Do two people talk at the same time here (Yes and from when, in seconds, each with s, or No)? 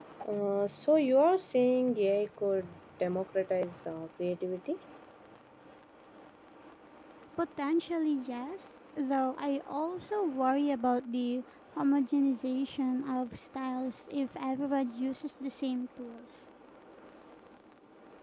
No